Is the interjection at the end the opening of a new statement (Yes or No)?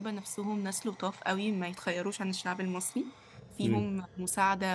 No